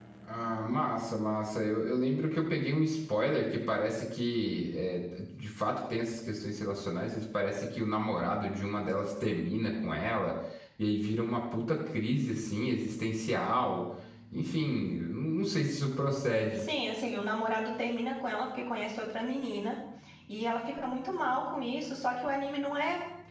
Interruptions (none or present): none